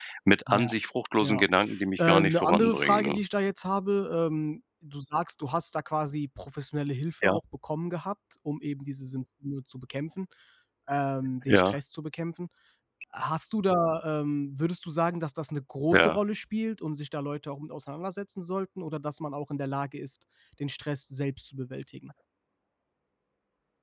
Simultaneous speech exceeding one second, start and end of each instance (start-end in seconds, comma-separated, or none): 2.0-3.2